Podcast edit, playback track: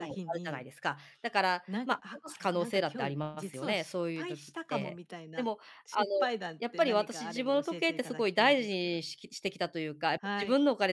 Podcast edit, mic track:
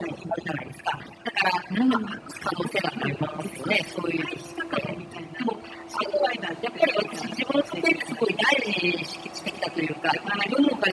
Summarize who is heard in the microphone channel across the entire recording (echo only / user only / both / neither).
both